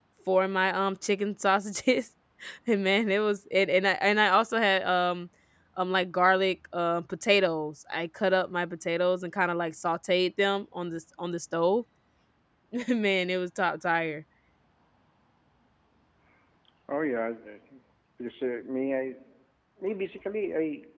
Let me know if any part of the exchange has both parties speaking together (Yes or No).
No